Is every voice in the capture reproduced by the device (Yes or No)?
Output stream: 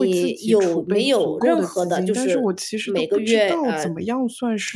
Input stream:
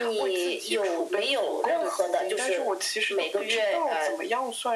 Yes